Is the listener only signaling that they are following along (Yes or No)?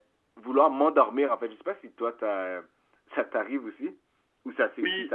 No